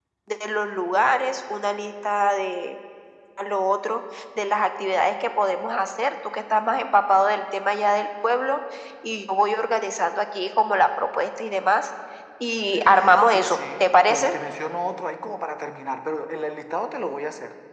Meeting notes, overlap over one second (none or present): present